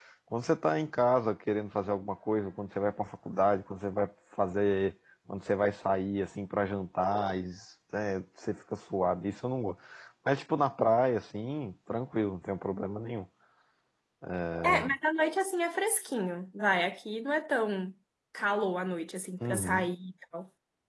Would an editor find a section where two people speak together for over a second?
No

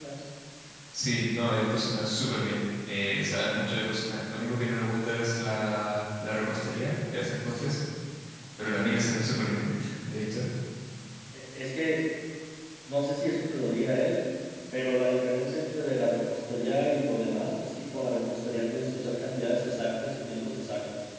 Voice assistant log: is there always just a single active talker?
Yes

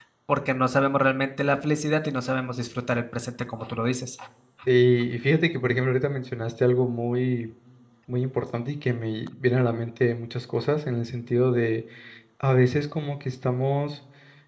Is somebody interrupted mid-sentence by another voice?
No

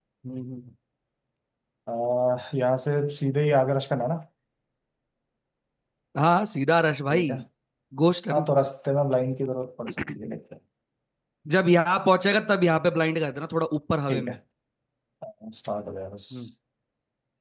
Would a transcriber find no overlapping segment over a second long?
Yes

